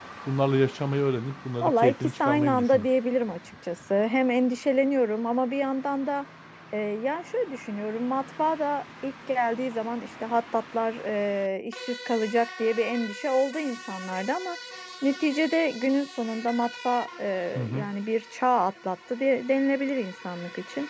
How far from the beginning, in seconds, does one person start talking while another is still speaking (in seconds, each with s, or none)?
1.6 s